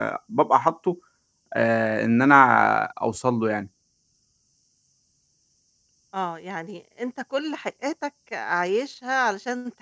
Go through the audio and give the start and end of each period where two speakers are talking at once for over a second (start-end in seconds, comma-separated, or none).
none